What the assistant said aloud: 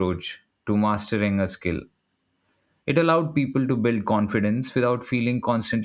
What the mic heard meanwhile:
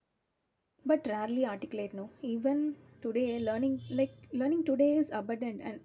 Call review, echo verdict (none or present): none